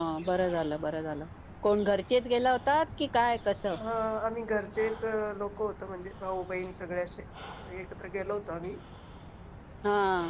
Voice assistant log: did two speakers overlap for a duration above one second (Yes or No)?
No